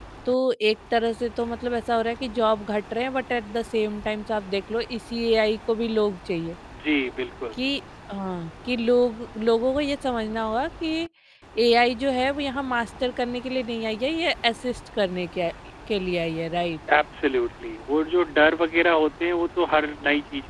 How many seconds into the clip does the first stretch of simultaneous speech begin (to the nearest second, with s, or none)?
none